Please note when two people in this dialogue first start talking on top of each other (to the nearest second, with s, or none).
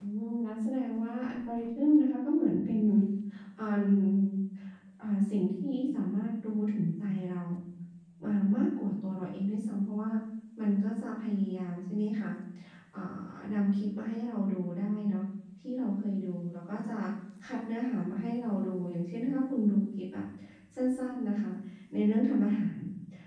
none